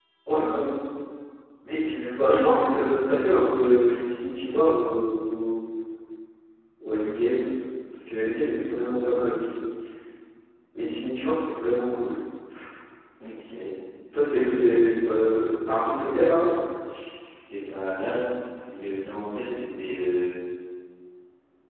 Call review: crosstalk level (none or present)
none